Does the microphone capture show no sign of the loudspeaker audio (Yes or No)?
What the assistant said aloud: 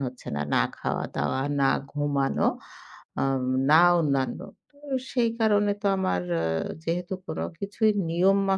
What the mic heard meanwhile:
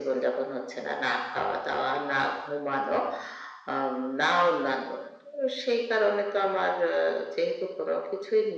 No